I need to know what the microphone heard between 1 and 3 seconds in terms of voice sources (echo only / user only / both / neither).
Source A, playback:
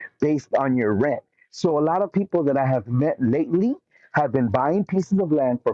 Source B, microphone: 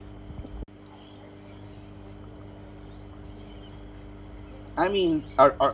neither